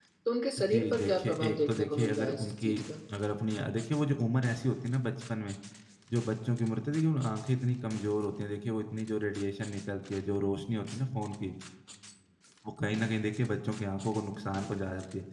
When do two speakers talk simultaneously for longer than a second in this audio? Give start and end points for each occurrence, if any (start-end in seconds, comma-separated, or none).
0.7-2.7